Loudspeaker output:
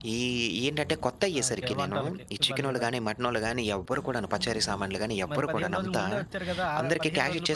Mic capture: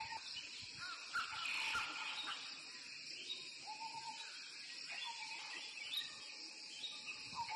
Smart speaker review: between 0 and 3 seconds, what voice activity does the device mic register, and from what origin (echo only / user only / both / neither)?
neither